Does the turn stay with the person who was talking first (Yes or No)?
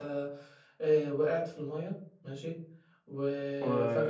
Yes